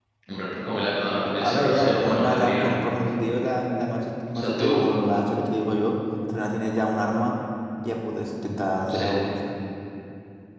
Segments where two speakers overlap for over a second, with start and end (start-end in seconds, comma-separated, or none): 1.4-2.8